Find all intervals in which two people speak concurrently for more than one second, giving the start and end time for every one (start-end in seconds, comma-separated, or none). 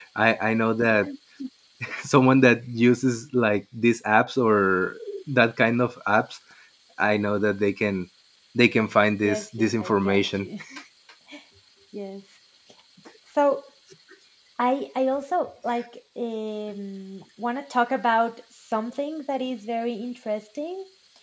9.2-10.5